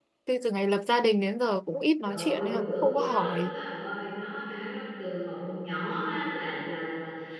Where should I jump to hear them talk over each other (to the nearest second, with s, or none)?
2 s